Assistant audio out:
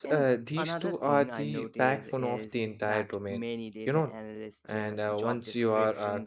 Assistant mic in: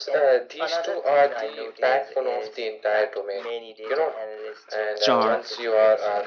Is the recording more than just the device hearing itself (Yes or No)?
Yes